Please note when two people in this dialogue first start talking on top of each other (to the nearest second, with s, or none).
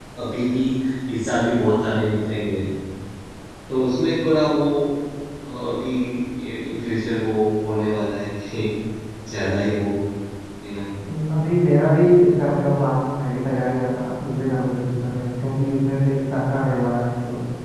none